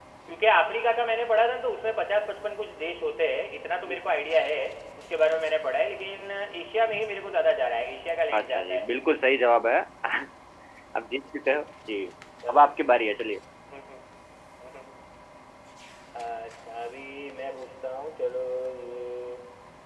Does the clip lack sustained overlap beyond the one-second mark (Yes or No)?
Yes